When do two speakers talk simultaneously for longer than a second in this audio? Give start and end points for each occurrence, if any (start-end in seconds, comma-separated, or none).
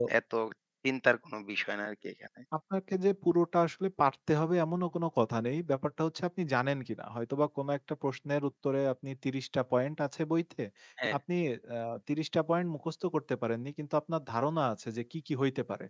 none